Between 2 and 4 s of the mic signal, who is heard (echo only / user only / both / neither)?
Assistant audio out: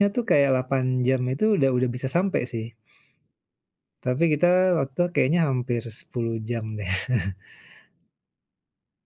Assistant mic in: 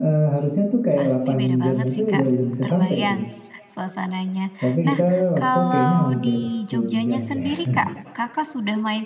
both